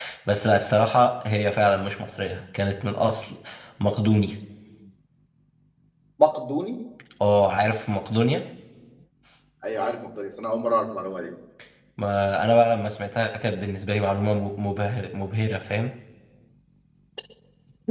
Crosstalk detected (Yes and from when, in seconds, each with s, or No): No